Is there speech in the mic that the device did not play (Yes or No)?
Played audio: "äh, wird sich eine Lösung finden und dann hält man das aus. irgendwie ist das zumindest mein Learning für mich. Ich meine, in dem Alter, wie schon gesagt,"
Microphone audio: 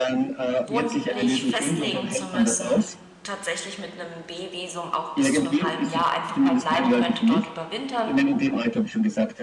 Yes